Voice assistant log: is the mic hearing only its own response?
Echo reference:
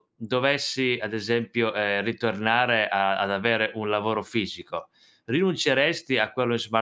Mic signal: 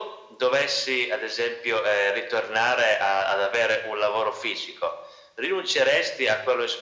Yes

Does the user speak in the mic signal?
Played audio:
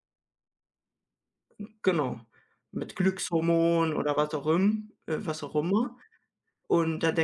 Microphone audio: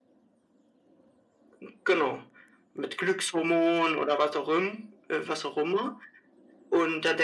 No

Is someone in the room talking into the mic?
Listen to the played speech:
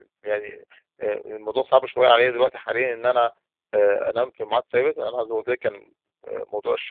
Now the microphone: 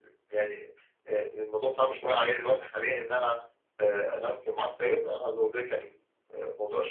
No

